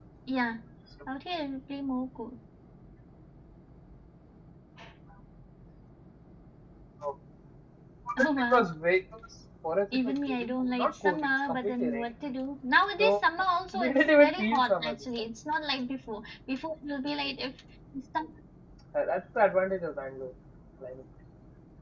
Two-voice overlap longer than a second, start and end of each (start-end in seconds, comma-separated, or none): 9.9-12.1, 13.8-15.2